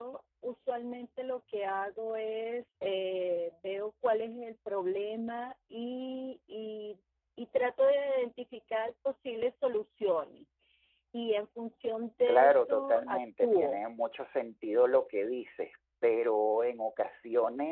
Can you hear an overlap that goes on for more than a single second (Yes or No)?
Yes